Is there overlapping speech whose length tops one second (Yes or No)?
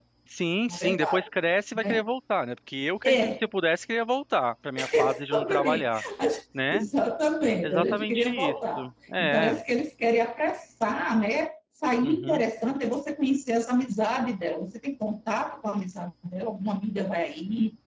Yes